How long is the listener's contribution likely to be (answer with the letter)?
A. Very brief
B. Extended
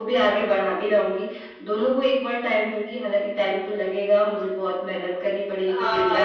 B